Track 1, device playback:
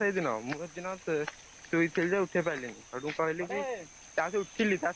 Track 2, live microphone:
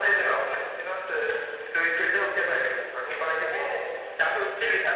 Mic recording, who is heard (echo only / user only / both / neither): echo only